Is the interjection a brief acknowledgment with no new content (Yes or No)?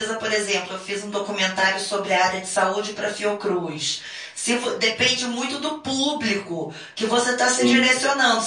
Yes